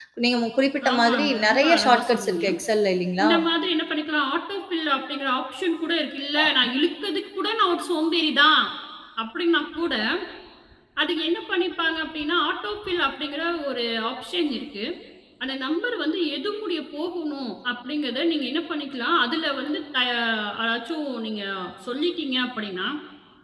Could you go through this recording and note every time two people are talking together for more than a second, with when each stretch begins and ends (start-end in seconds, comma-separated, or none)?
0.9-2.4